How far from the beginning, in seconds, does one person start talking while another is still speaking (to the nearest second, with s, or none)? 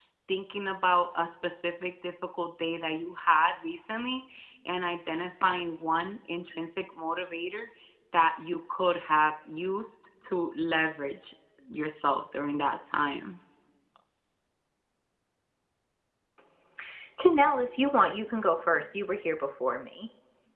none